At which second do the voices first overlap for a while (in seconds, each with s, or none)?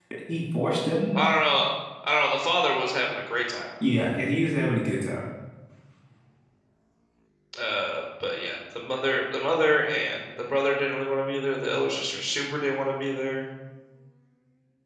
none